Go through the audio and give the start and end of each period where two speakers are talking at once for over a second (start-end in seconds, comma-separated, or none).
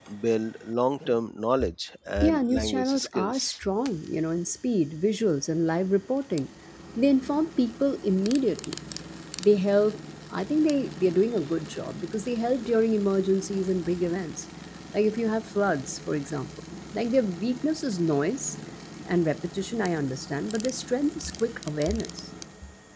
2.2-3.4